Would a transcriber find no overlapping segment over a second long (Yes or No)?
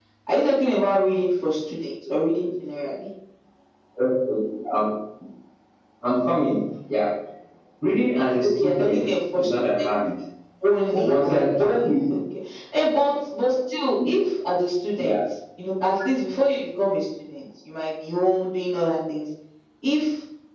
No